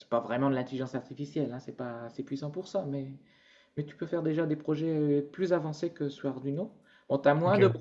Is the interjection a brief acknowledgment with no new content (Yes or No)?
Yes